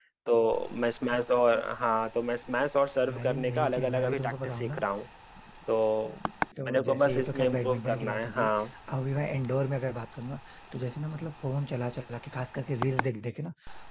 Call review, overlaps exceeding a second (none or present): present